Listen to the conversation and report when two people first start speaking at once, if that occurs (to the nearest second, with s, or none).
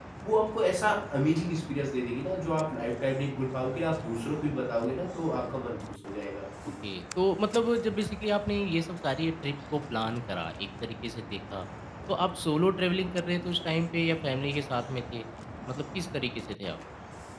none